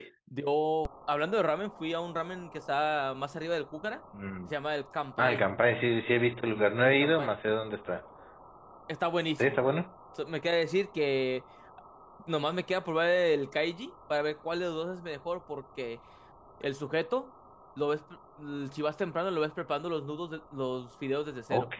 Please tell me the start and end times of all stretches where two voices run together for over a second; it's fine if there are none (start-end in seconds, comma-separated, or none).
none